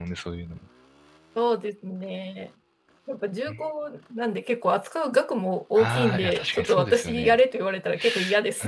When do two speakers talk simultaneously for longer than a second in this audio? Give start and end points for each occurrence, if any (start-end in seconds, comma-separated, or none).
5.8-7.4